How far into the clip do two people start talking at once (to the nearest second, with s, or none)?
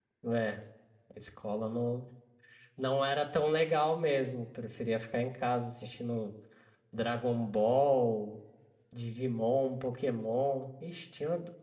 none